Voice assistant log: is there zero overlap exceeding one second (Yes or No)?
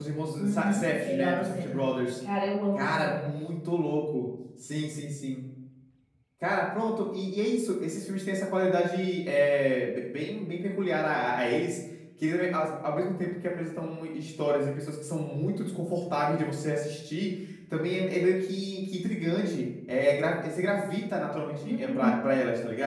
No